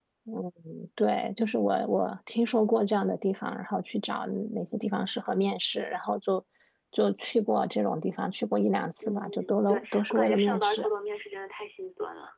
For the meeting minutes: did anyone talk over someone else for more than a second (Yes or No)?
Yes